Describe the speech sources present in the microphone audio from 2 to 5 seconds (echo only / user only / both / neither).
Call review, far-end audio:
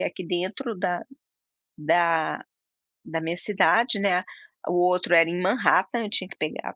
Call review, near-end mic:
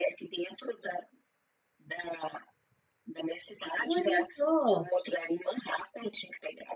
both